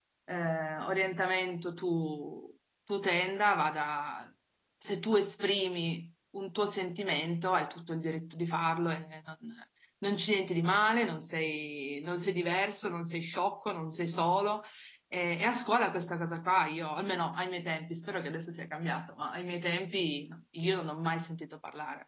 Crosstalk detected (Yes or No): No